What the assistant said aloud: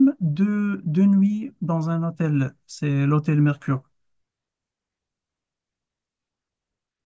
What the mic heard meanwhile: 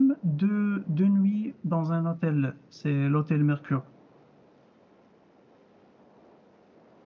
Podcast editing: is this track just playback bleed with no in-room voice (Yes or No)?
Yes